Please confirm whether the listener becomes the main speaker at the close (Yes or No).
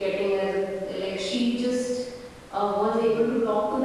No